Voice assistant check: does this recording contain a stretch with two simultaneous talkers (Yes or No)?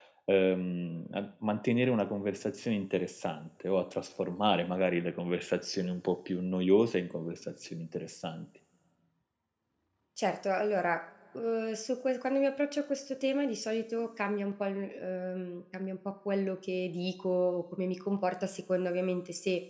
No